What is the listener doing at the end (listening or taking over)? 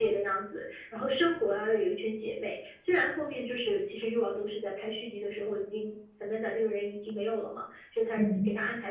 listening